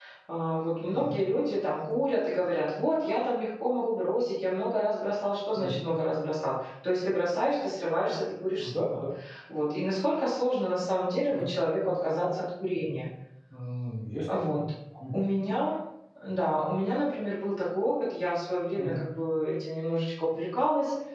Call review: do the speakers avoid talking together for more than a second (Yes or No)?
Yes